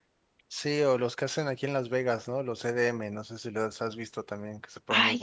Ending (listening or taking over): taking over